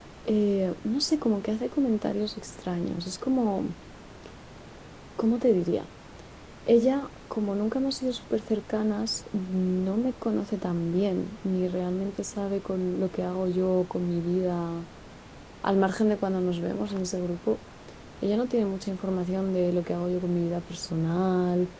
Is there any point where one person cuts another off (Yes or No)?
No